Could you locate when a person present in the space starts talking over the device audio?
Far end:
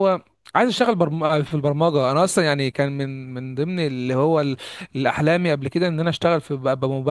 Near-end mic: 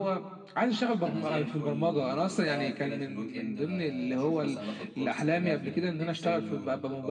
1.0 s

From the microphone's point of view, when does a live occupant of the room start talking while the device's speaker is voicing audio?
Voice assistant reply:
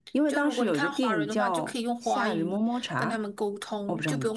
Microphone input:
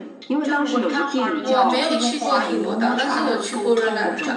1.4 s

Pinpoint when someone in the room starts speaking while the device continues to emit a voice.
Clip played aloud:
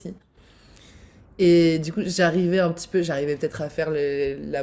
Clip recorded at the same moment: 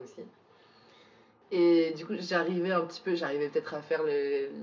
none

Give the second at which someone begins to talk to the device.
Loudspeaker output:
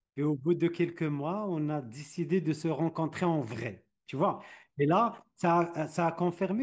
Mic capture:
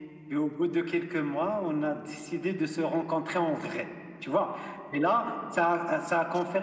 none

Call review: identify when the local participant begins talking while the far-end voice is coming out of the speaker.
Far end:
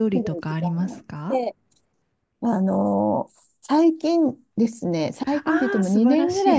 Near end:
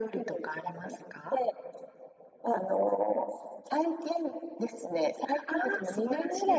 none

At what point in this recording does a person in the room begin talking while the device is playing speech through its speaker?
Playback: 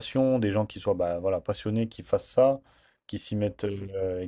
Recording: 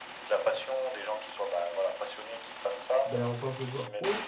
3.0 s

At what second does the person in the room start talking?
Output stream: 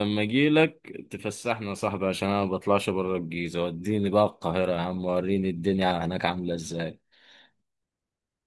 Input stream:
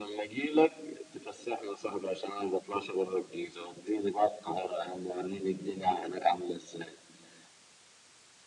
none

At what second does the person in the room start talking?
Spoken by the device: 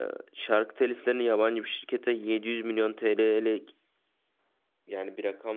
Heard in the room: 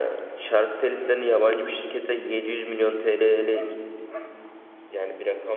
none

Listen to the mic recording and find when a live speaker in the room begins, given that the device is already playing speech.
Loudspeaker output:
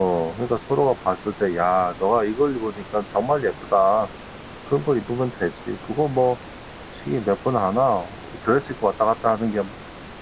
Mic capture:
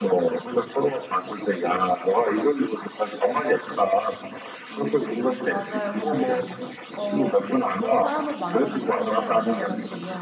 4.7 s

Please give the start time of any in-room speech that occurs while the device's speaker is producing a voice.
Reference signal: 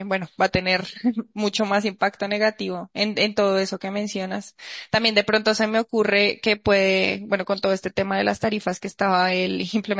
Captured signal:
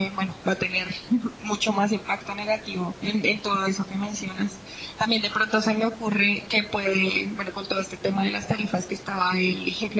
none

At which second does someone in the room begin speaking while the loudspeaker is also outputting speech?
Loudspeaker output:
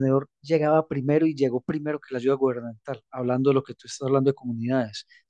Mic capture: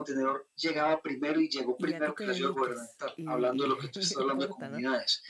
1.8 s

